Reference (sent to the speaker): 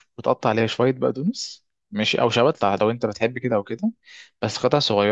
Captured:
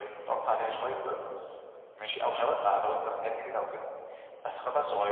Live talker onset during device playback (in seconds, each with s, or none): none